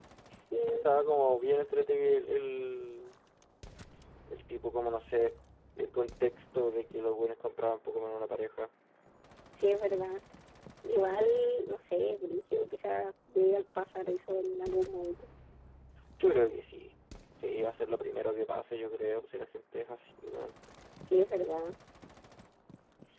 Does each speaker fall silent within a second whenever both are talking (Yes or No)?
Yes